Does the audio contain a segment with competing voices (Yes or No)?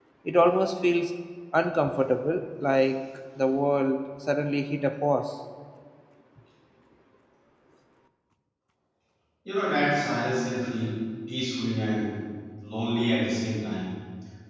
No